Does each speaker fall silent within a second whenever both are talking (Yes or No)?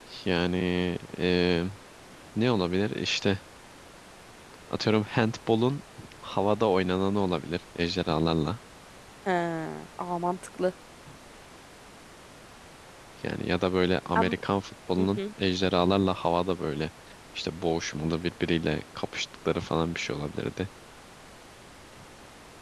Yes